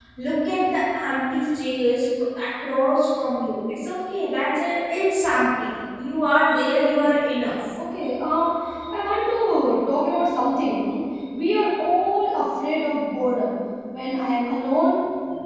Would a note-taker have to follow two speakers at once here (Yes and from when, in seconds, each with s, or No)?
No